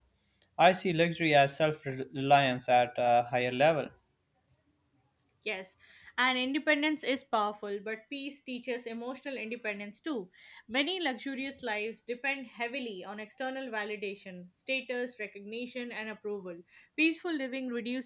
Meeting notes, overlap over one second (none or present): none